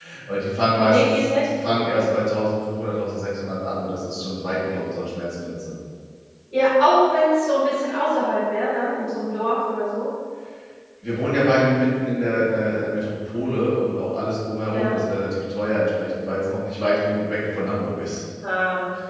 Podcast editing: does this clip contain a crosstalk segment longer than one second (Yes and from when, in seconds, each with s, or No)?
Yes, from 0.8 s